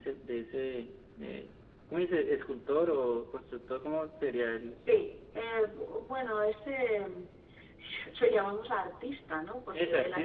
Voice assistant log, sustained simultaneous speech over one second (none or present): none